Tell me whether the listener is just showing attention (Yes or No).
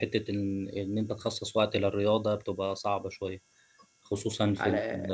Yes